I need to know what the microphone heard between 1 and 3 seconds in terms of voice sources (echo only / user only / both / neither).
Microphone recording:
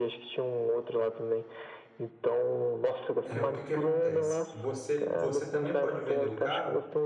echo only